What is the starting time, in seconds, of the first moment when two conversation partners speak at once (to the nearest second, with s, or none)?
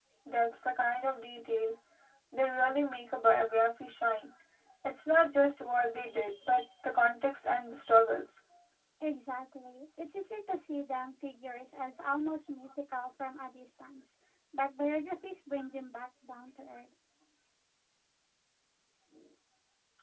none